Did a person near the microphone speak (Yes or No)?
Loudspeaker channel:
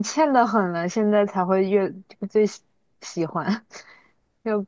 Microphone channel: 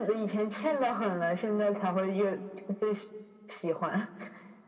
No